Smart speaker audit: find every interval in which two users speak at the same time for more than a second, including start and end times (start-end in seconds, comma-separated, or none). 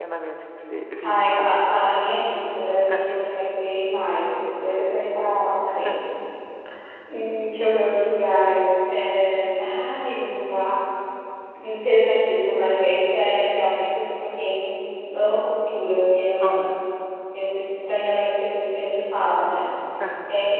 none